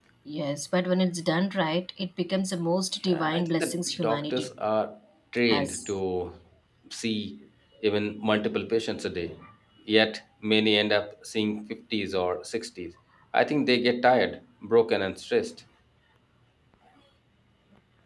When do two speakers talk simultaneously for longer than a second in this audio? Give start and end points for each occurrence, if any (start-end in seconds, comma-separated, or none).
3.1-4.5